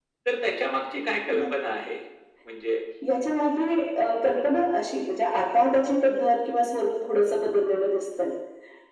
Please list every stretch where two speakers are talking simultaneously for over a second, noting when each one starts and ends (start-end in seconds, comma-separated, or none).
none